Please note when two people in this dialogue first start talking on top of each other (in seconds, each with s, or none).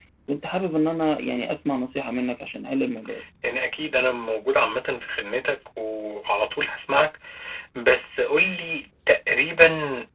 none